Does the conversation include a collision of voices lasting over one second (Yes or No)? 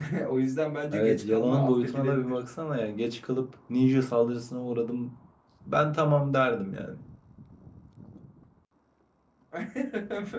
Yes